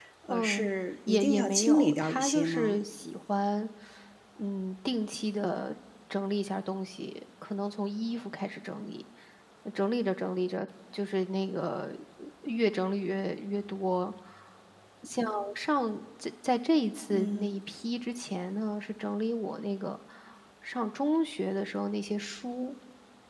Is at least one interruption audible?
Yes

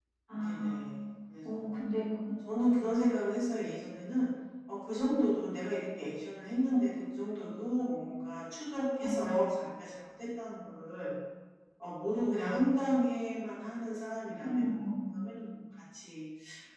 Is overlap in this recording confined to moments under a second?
Yes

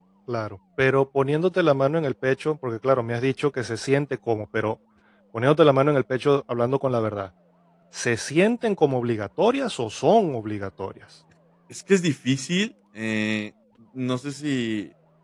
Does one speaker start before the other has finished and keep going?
No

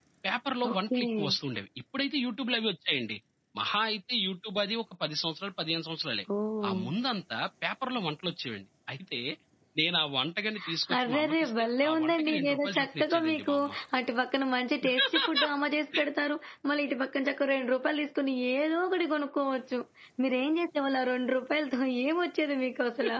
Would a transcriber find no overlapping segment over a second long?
No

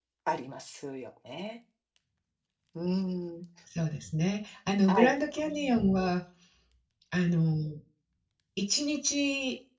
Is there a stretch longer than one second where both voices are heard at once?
No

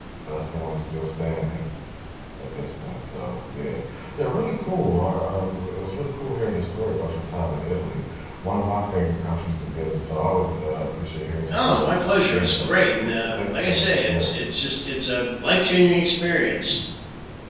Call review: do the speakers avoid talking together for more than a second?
No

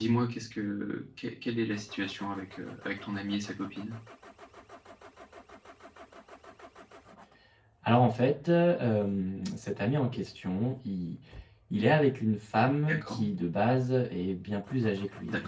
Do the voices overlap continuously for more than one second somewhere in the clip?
No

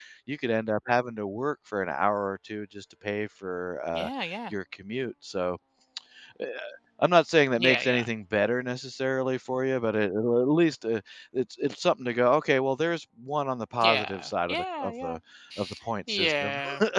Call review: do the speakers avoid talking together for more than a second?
No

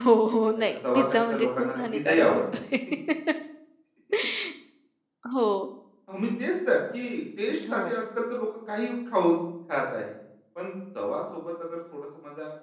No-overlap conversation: No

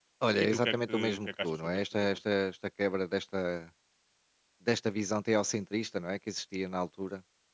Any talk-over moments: Yes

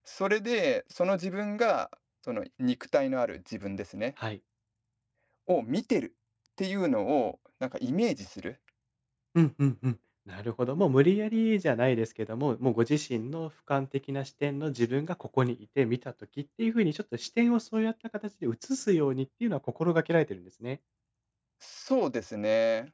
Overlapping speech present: No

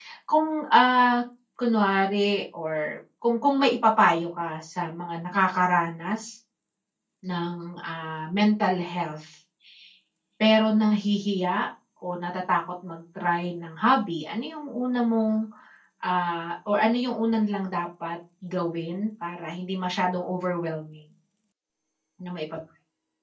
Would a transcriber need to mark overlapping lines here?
No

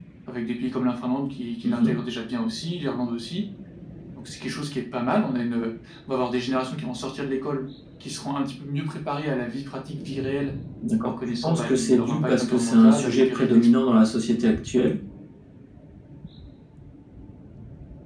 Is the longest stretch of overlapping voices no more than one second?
No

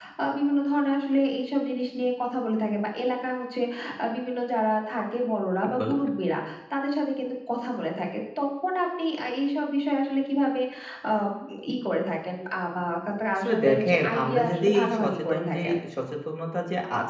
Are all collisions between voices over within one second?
No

